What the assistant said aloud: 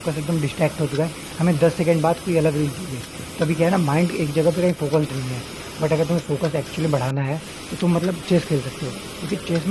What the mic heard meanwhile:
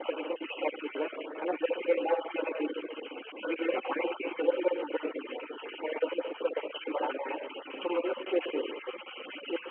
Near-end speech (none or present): none